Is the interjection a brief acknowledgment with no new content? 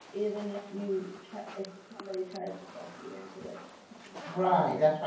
No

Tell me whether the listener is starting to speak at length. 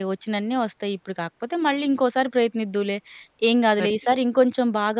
No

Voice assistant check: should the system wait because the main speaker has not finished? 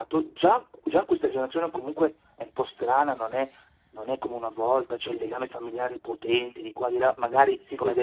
Yes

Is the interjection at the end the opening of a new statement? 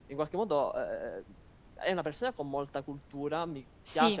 No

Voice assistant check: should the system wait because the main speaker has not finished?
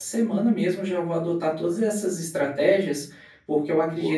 Yes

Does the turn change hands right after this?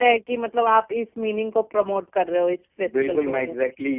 Yes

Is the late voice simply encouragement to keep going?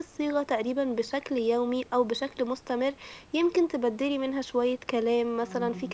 Yes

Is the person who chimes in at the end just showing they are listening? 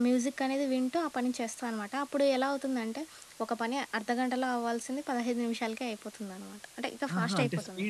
No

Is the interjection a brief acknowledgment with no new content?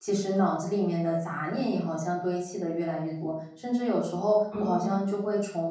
Yes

